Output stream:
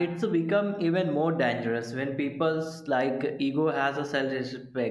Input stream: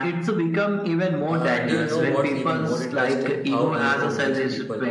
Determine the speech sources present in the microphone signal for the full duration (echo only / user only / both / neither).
both